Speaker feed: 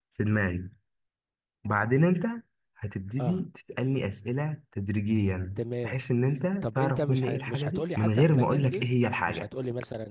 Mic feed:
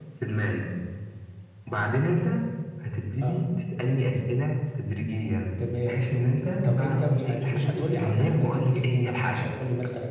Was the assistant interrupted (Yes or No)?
No